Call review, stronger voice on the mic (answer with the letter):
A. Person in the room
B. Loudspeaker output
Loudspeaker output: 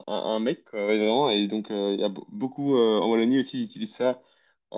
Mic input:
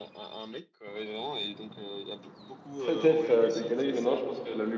A